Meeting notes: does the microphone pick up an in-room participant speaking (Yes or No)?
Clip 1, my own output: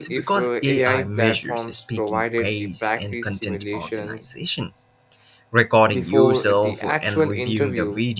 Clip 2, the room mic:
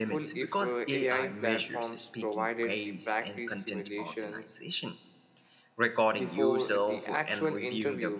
No